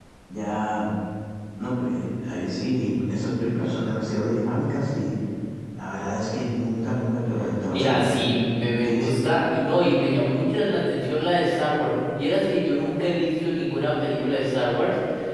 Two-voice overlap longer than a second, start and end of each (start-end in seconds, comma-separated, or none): none